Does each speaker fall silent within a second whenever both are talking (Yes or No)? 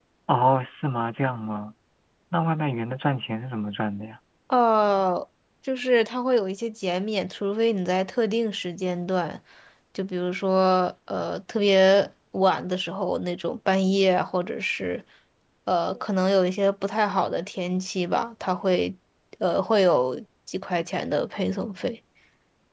Yes